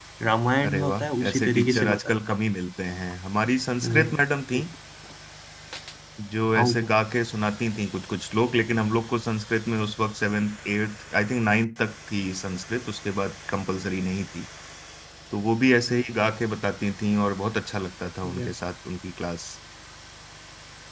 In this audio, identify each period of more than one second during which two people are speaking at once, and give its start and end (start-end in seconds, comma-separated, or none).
0.7-2.2